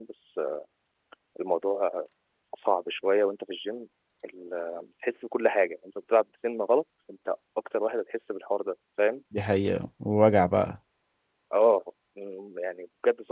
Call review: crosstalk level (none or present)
none